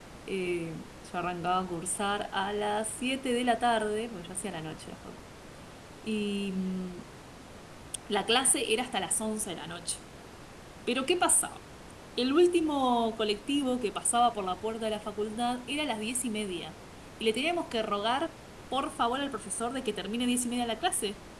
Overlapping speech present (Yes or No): No